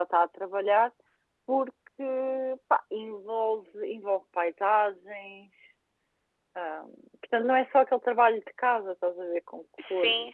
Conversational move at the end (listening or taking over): taking over